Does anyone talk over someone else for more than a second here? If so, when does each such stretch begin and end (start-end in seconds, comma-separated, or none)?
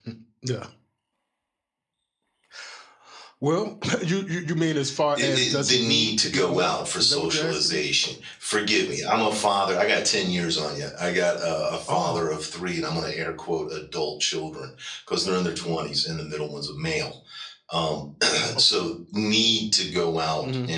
5.2-7.8